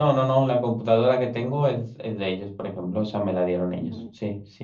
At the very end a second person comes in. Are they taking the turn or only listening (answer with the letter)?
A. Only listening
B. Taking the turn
A